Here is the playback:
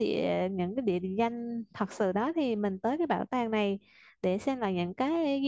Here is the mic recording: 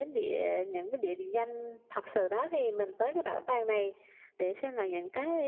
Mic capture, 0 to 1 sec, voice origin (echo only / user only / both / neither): echo only